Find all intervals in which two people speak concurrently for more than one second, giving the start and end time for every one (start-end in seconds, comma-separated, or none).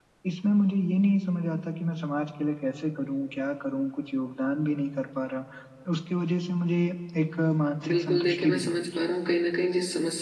7.9-9.1